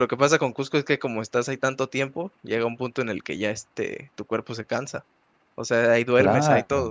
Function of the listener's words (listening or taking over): taking over